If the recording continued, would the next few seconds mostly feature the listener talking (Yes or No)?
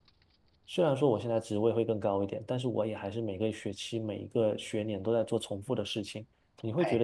No